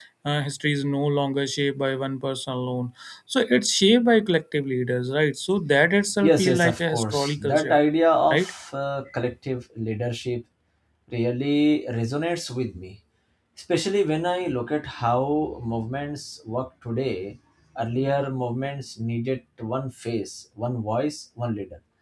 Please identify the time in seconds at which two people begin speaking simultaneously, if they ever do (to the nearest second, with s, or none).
6 s